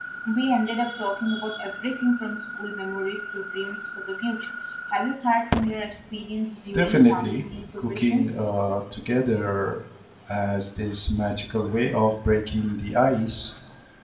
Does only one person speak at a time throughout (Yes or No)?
No